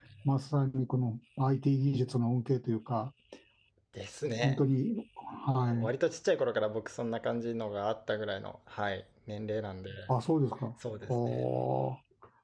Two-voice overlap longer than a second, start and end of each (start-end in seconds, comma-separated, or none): none